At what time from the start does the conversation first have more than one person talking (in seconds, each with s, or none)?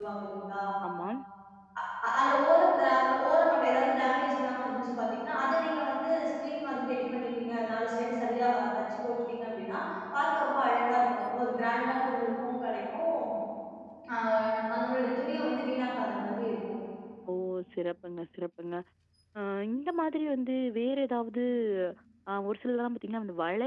none